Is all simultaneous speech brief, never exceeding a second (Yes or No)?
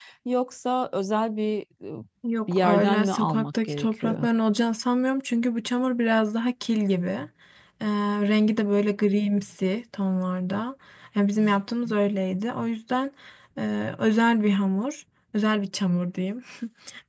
No